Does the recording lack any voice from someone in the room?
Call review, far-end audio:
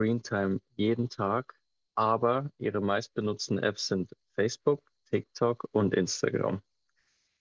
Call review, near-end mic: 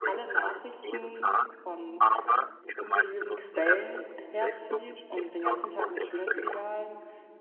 No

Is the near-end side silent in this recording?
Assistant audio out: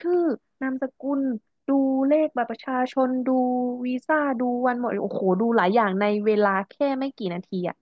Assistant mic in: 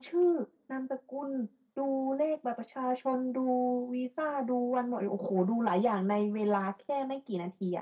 Yes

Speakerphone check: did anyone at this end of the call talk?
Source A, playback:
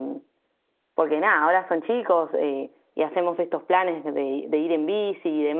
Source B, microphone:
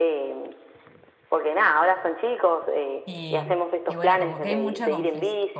Yes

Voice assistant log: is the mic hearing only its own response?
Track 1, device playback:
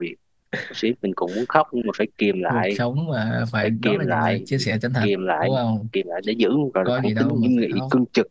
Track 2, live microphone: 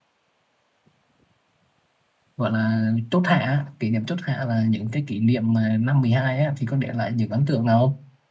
No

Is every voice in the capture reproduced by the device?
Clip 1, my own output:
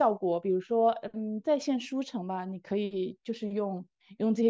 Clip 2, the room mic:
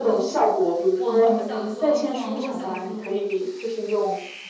No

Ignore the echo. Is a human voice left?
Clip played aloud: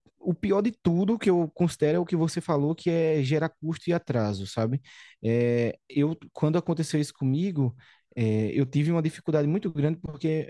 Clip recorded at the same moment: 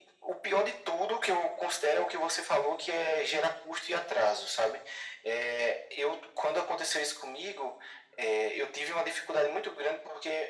No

